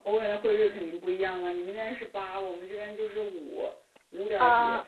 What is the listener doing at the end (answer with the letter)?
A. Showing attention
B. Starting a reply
A